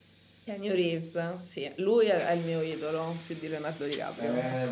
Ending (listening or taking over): taking over